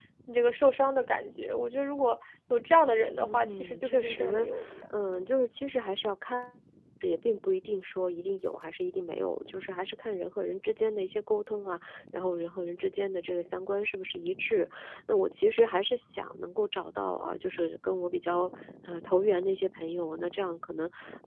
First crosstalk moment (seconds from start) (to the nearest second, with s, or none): 3 s